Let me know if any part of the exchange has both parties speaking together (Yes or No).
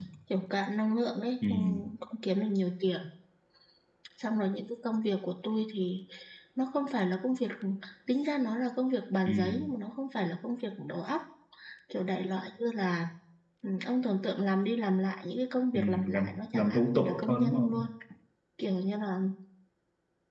Yes